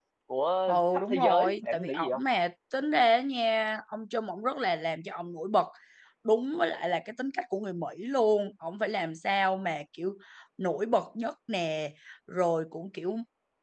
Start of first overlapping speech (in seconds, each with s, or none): 0.7 s